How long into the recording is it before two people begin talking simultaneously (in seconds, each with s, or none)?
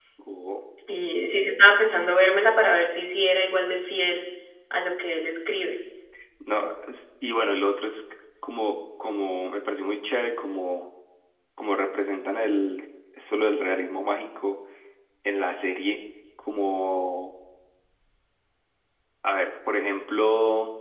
none